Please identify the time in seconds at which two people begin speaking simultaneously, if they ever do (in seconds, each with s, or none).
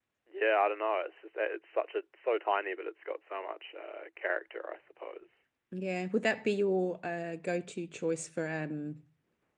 none